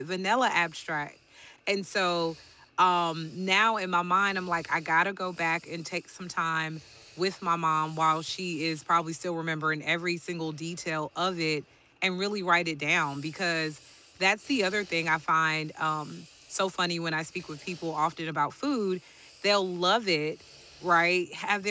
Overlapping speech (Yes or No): No